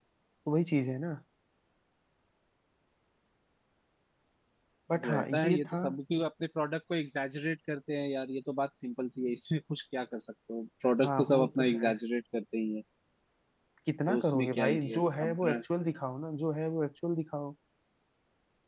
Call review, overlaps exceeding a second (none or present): present